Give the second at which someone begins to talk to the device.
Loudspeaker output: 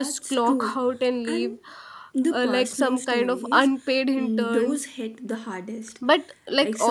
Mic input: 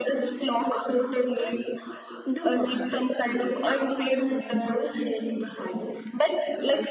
none

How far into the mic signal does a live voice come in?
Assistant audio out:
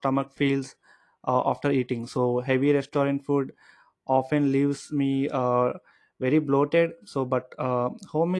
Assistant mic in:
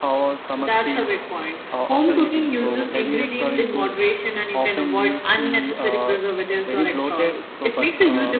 0.6 s

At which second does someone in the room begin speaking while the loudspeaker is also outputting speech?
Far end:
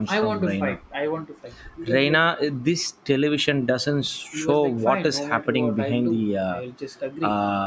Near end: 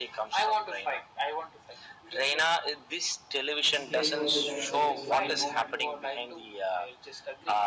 3.6 s

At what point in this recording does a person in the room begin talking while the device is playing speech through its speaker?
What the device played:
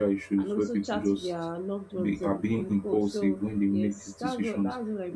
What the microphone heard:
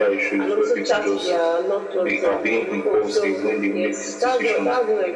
none

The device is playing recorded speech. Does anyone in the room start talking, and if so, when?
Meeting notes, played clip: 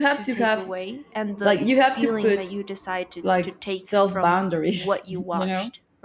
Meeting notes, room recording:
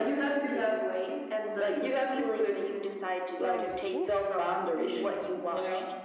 3.3 s

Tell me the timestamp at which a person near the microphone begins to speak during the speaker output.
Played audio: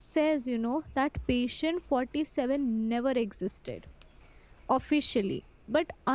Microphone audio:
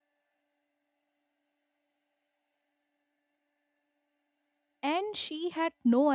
4.8 s

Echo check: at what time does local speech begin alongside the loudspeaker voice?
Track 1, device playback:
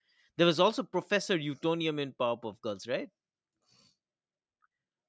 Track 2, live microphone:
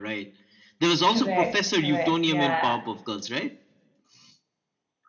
1.1 s

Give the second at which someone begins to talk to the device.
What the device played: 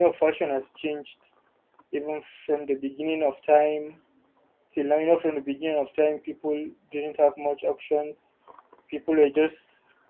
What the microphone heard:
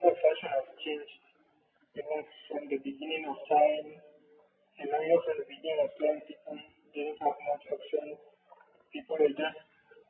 none

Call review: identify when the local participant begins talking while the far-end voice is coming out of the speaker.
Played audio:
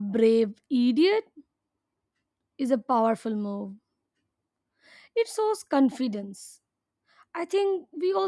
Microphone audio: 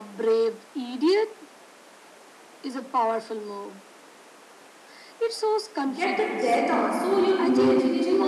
5.9 s

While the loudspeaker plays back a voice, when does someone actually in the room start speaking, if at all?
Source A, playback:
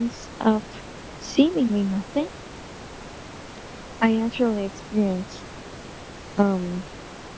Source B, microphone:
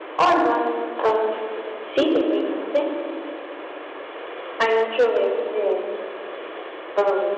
none

